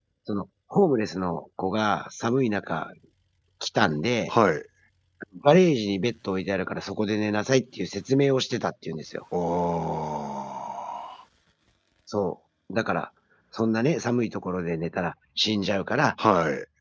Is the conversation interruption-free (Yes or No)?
Yes